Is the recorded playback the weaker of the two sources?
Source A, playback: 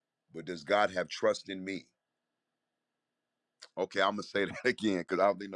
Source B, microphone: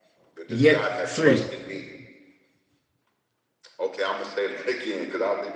Yes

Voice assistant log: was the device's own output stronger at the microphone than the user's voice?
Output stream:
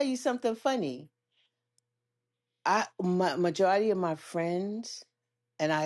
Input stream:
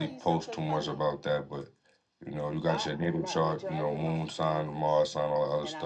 No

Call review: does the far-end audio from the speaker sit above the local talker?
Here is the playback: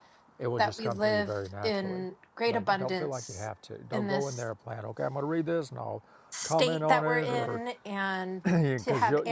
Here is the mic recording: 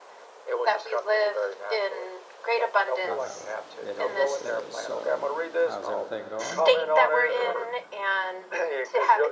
Yes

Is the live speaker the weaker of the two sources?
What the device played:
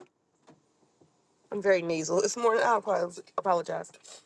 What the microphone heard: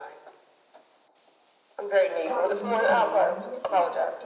Yes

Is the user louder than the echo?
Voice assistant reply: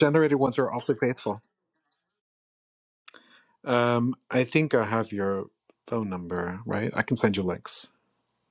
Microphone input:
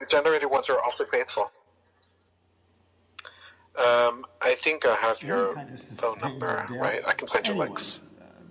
No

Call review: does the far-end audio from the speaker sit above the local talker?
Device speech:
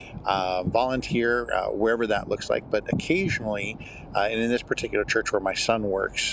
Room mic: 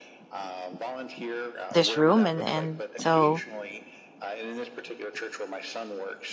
No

